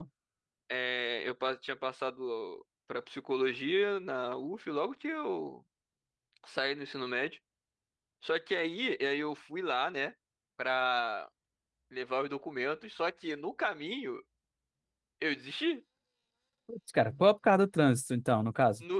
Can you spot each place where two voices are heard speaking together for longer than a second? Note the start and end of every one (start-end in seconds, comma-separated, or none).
none